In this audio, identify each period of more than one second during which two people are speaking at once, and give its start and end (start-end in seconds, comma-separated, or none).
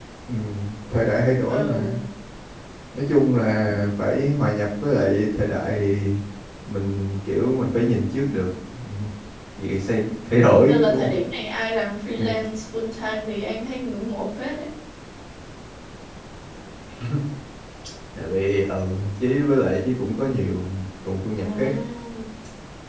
none